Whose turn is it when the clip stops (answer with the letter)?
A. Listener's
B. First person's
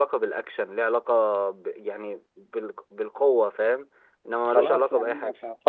A